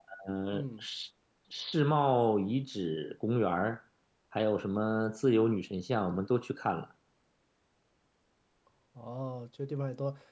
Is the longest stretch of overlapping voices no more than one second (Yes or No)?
Yes